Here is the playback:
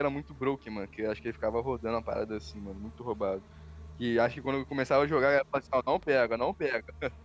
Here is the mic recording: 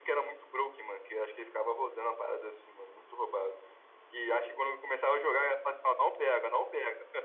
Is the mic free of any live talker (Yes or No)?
Yes